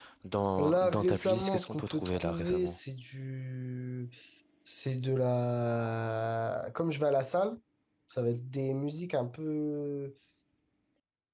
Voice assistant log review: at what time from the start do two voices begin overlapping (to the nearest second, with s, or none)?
1 s